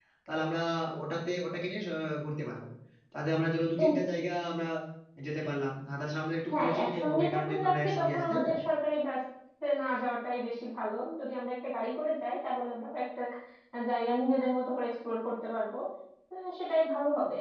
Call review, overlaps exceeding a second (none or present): present